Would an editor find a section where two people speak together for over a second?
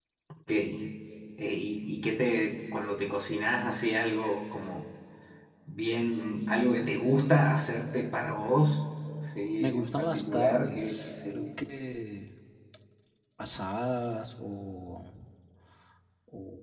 Yes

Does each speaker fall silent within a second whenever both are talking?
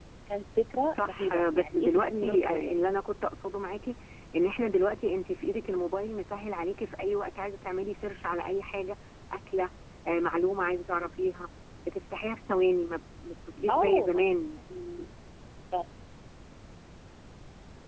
No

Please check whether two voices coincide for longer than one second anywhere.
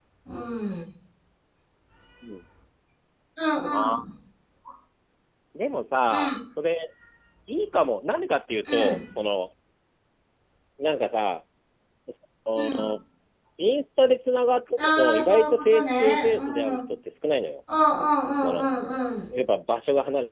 Yes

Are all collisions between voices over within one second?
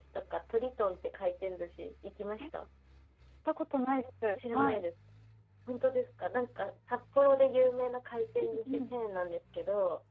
Yes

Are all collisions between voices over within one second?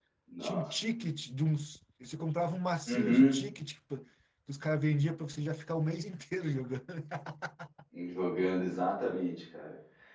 Yes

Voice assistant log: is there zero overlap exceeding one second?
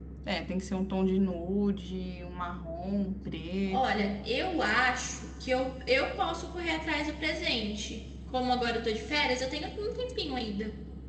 Yes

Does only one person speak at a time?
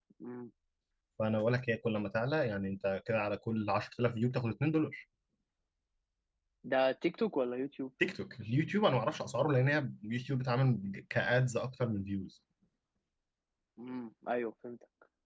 Yes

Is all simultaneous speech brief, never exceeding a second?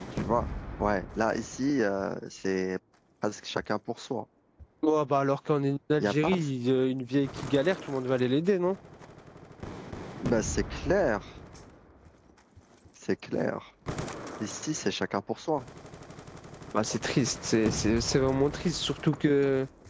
Yes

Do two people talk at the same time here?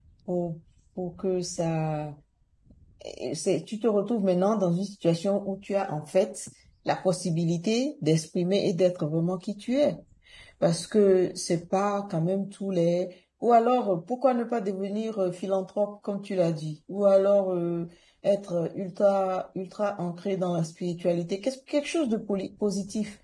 No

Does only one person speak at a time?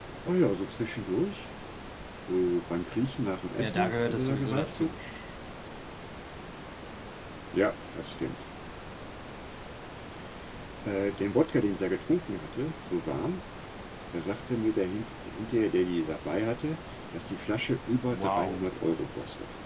No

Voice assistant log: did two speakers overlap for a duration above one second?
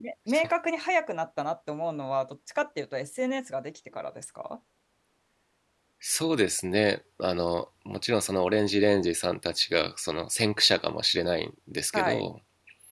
No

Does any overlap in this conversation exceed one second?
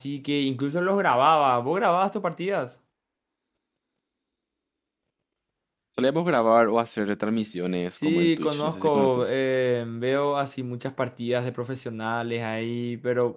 Yes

